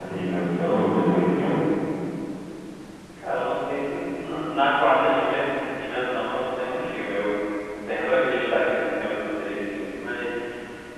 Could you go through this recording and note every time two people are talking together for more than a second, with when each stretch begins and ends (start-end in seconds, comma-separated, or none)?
none